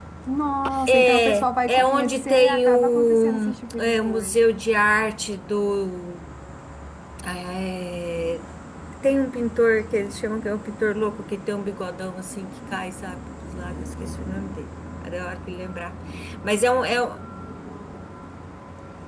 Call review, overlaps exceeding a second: present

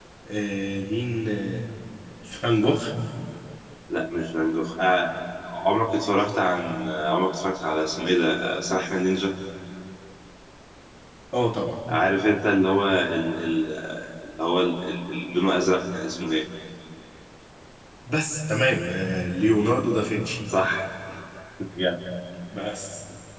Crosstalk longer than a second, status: none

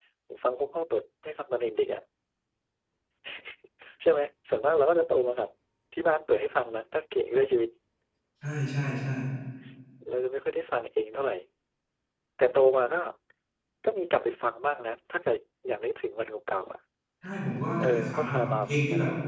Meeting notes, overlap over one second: present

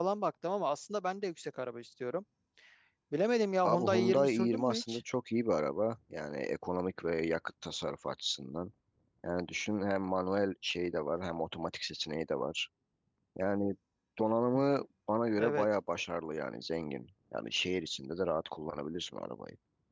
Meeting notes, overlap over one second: present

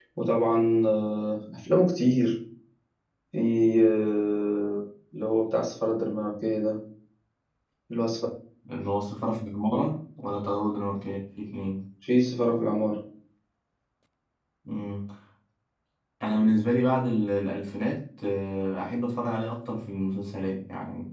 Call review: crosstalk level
none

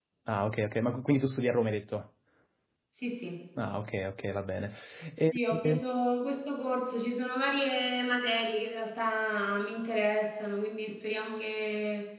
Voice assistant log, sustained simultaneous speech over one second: none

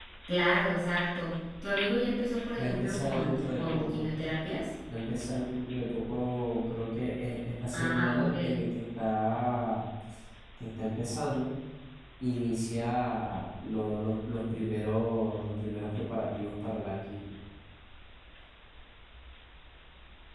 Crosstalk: present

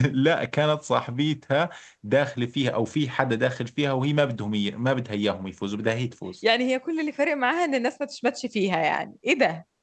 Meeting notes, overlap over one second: none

